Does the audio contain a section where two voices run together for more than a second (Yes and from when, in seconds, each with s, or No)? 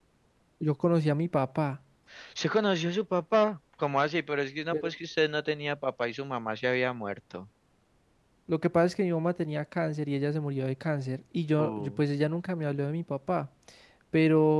No